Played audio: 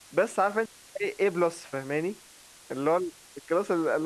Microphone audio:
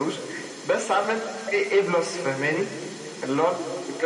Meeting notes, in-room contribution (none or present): none